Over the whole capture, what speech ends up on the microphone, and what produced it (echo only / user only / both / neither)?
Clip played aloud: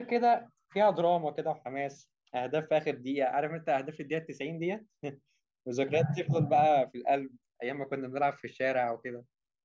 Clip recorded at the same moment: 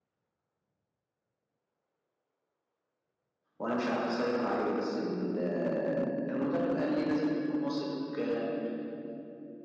user only